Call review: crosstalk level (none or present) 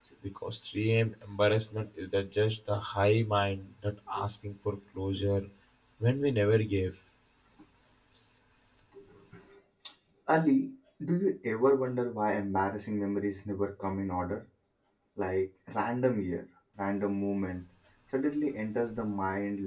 none